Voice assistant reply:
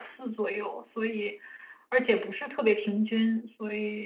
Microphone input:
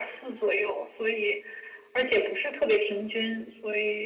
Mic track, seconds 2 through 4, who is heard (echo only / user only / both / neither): echo only